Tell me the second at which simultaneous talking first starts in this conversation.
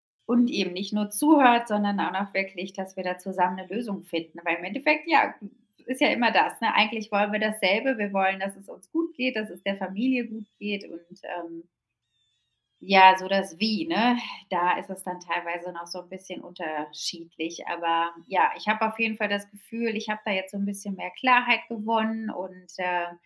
none

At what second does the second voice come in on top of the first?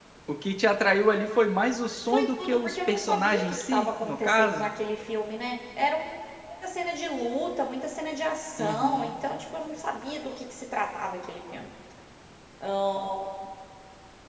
2.1 s

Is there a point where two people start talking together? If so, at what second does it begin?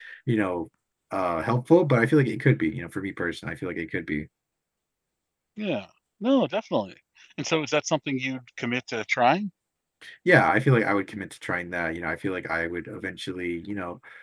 none

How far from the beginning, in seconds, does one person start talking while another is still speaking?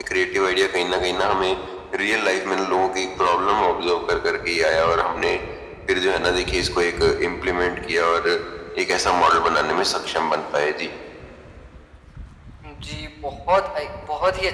none

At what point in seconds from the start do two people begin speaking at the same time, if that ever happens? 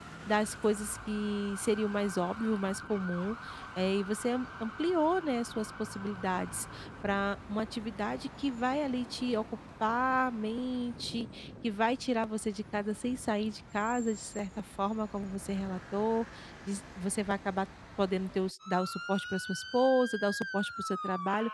none

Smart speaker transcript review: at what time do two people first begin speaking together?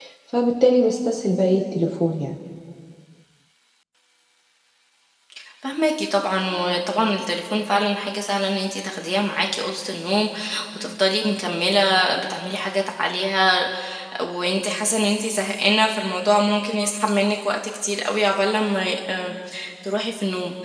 none

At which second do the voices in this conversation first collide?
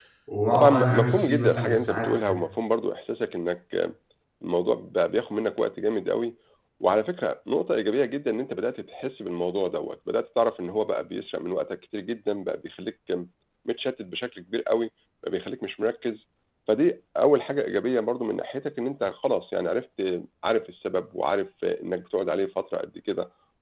0.5 s

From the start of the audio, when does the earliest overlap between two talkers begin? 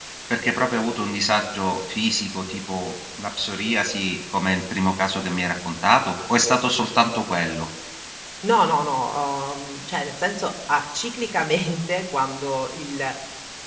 none

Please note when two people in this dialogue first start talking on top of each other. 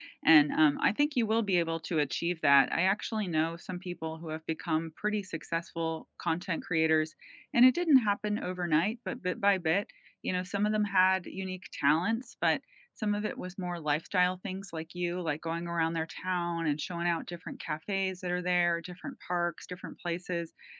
none

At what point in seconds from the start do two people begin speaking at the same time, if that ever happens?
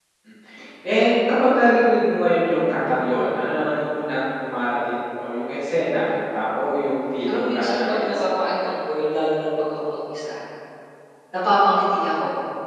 7.3 s

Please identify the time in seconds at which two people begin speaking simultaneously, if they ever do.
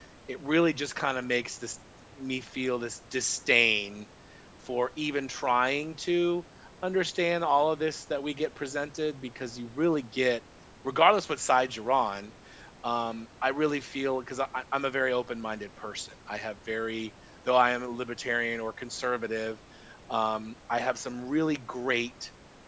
none

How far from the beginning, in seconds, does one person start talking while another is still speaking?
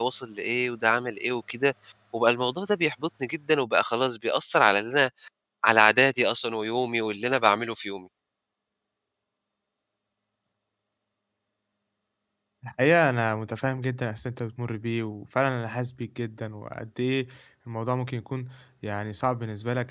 none

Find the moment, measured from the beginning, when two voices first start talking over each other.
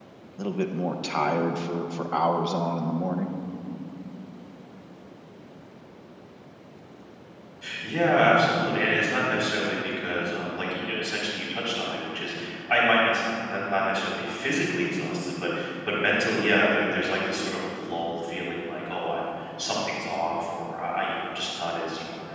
none

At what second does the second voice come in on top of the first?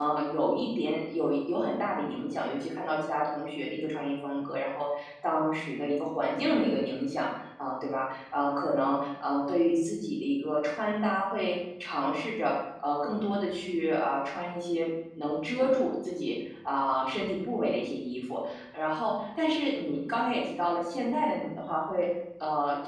none

